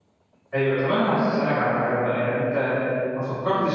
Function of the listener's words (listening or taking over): listening